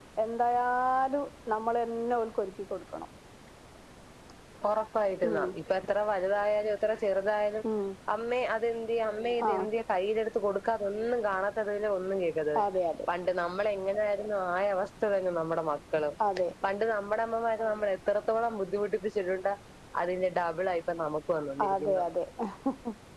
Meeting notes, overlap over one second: none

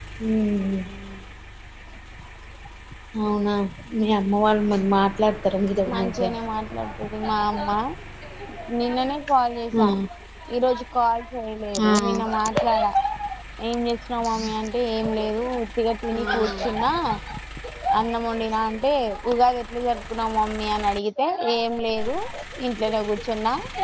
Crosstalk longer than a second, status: none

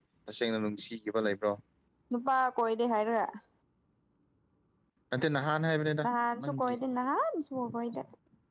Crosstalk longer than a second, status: none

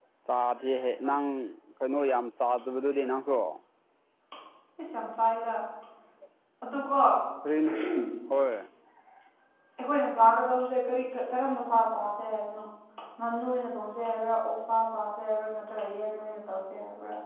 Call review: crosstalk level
none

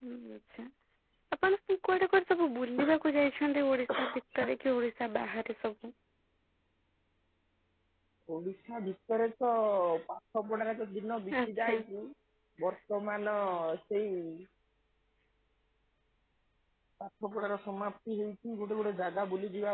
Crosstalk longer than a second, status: none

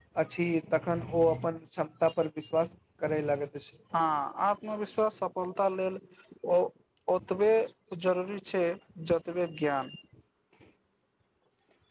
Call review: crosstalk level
none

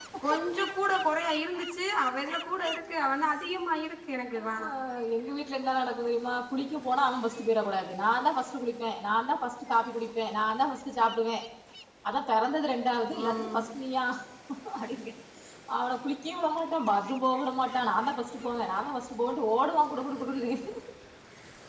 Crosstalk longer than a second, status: none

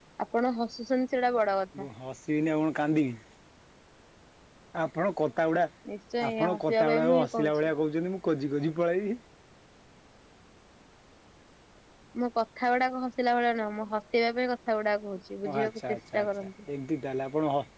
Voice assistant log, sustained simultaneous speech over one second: present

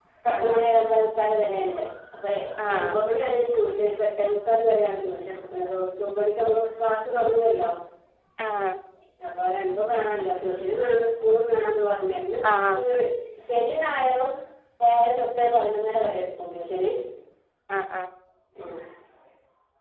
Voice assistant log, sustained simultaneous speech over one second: none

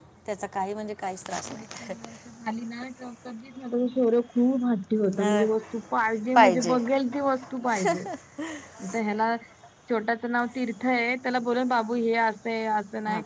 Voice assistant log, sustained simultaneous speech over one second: none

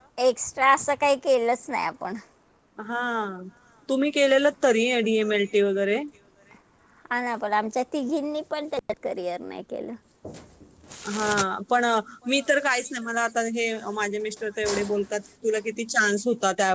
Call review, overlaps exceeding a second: none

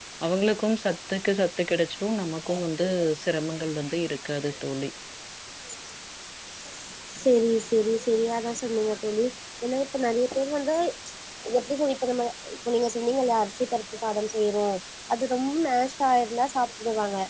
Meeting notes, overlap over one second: none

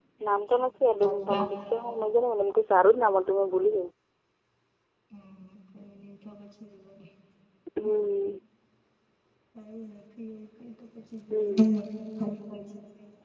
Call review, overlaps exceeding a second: none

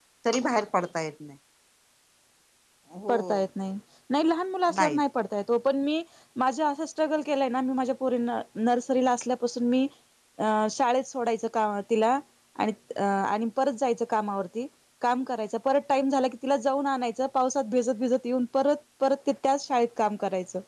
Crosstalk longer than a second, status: none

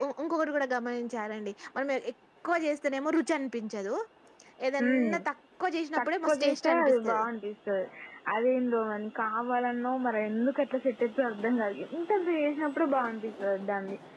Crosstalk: present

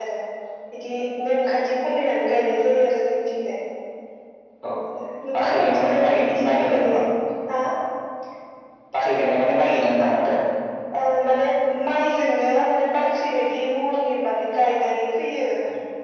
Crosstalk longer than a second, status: present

